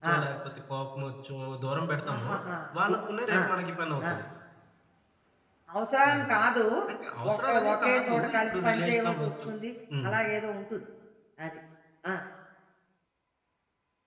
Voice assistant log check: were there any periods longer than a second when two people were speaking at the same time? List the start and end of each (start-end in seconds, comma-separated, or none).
7.3-9.5